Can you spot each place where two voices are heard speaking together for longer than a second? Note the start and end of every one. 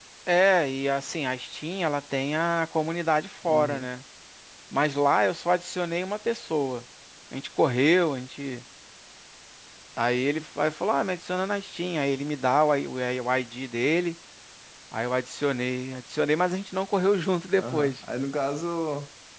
none

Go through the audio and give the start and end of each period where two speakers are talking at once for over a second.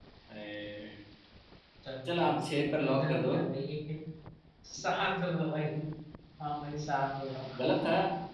2.0-3.4

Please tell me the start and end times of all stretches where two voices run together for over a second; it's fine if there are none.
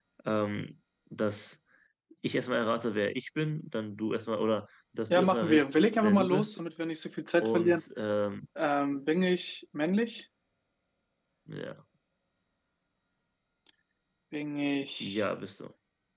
5.1-6.6

